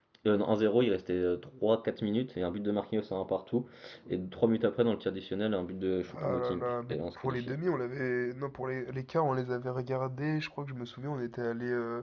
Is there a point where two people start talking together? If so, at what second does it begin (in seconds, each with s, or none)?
6.1 s